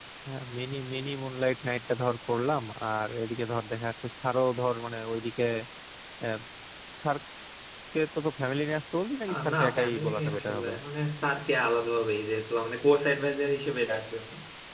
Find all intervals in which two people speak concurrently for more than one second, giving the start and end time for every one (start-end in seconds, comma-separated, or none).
9.3-10.7